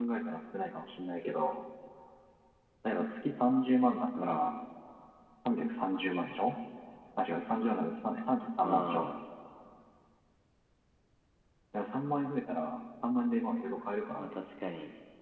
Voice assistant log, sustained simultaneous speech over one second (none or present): none